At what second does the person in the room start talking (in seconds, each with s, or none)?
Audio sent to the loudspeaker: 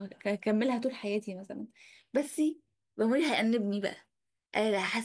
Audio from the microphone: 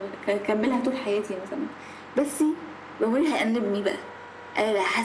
none